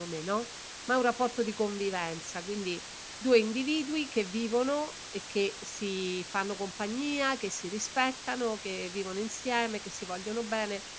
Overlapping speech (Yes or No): No